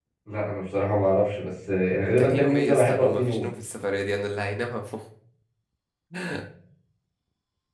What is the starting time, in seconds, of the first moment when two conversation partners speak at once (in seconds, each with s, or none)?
2.2 s